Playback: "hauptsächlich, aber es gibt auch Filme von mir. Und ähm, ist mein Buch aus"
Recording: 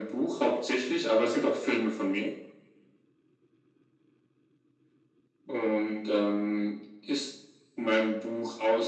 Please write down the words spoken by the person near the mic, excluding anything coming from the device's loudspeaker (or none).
none